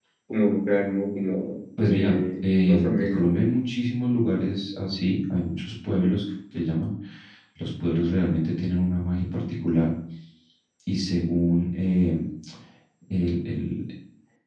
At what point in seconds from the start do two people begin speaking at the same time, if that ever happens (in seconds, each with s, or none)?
1.8 s